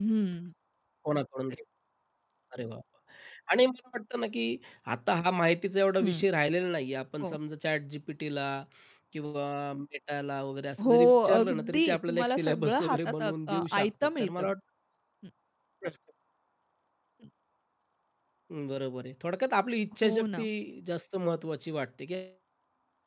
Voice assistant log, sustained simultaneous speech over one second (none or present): present